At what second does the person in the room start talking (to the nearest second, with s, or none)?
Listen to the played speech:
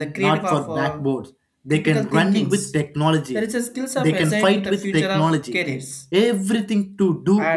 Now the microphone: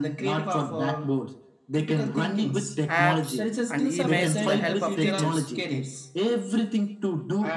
3 s